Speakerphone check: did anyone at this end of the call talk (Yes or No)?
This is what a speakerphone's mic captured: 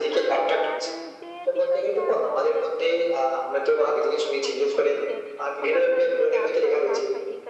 Yes